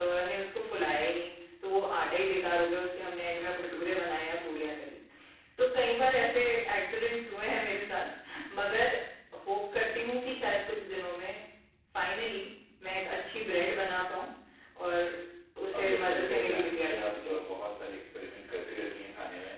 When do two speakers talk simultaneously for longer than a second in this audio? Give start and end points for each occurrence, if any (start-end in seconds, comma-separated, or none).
15.7-17.3